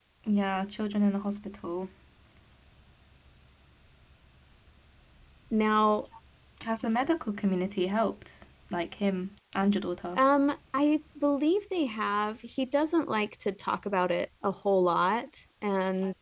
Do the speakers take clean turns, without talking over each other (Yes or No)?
Yes